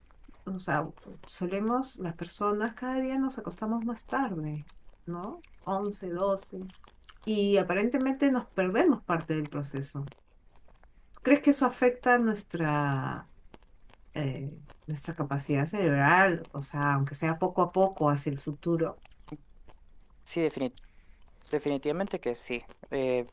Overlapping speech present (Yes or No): No